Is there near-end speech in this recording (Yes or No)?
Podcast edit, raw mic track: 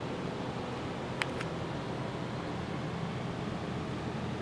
No